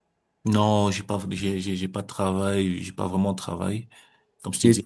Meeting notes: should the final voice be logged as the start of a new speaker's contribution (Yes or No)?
No